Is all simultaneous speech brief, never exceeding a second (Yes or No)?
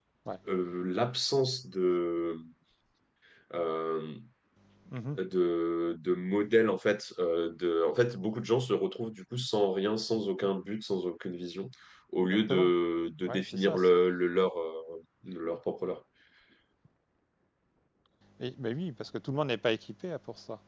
Yes